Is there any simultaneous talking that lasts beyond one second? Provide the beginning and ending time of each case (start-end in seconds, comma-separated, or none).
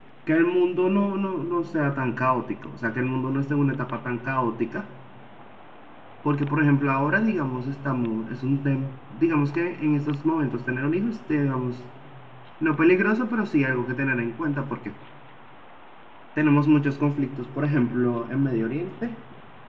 none